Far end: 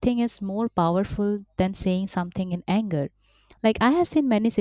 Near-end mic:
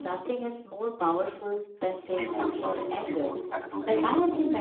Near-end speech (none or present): present